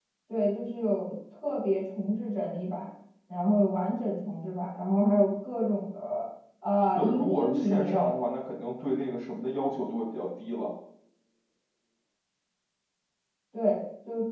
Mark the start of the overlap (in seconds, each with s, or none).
7.0 s